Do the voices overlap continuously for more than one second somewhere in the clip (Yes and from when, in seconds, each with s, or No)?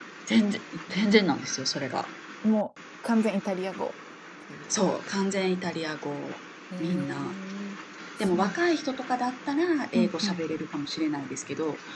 No